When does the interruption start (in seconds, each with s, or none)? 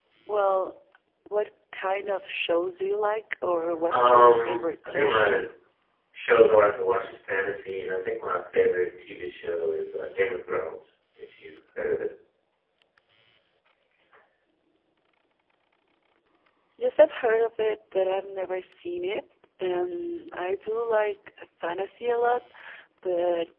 3.9 s